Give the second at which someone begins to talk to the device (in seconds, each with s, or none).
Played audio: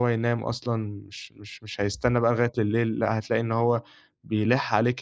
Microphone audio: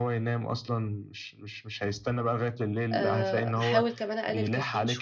2.9 s